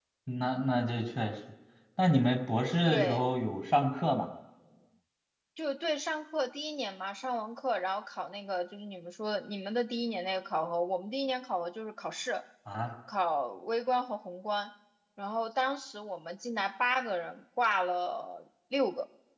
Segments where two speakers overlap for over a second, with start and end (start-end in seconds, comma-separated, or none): none